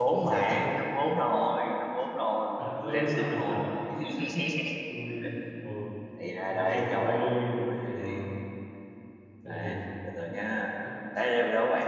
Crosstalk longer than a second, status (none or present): present